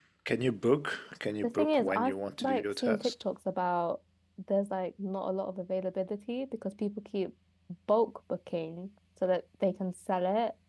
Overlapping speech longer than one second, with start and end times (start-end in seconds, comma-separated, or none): 1.4-3.1